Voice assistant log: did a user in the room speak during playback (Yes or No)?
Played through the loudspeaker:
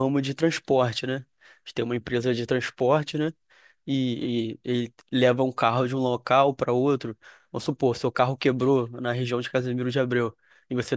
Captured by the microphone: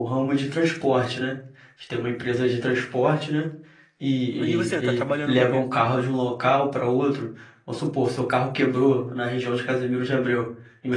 Yes